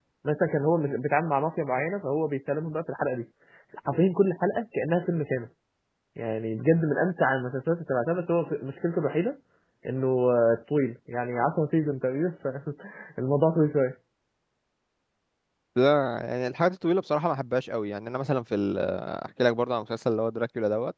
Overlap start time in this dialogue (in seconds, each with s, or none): none